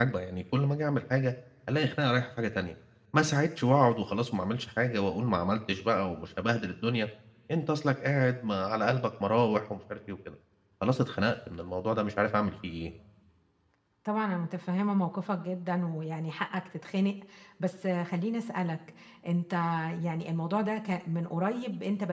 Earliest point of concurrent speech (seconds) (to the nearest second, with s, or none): none